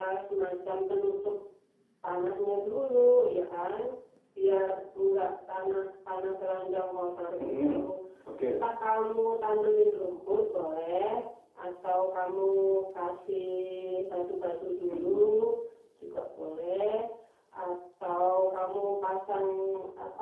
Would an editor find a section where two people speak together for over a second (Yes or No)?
No